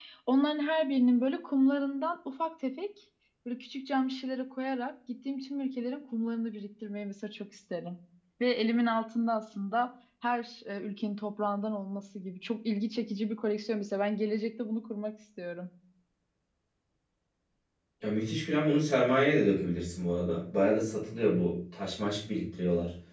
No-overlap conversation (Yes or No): Yes